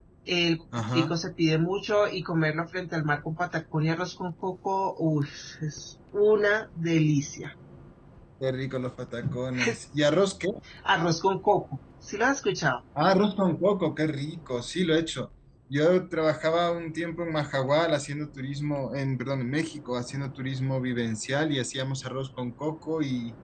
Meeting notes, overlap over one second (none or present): none